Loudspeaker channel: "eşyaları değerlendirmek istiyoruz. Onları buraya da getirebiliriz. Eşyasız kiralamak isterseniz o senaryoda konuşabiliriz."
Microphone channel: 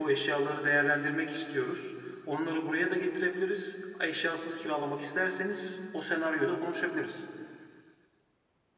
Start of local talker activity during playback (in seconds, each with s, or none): none